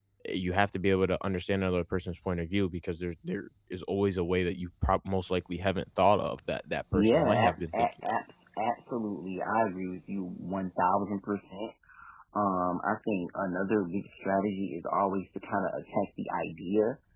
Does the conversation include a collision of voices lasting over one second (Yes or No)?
Yes